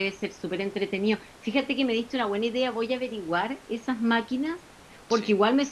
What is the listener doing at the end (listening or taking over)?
listening